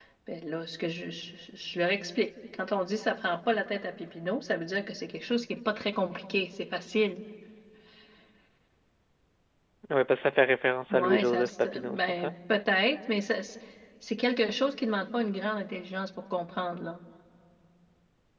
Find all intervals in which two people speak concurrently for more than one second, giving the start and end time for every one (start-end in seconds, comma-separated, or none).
10.9-12.3